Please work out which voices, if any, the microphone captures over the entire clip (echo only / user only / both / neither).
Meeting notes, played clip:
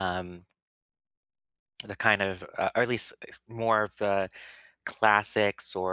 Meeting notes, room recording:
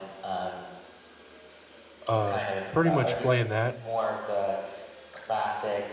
both